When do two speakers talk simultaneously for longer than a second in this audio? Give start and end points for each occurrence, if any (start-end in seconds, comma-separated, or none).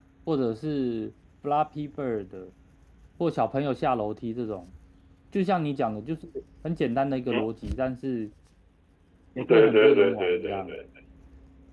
9.5-10.7